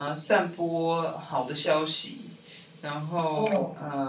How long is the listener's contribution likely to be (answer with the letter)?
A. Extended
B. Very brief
B